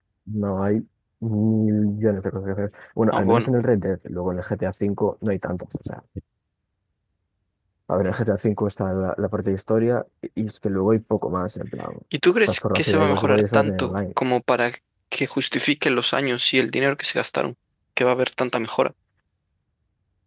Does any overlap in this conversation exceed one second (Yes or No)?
Yes